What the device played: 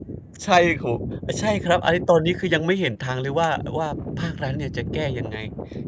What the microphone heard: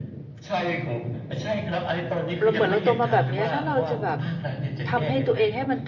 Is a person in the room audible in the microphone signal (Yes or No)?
Yes